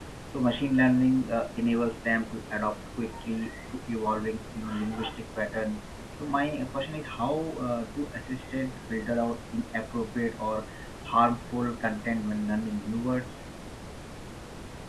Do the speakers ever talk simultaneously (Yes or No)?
No